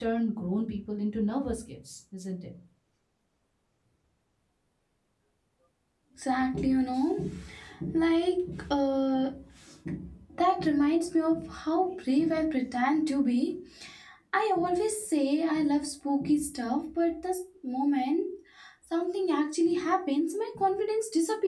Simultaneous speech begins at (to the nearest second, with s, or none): none